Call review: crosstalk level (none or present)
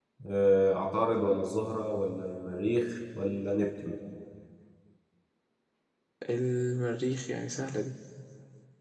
none